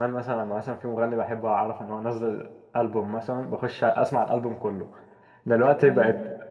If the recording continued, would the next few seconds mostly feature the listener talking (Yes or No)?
No